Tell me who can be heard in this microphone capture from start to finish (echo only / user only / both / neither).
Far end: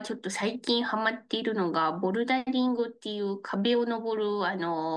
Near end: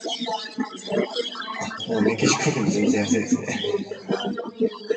both